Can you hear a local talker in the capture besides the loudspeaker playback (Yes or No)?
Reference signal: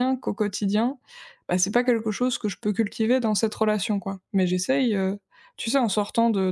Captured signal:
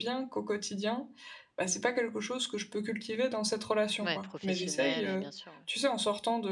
Yes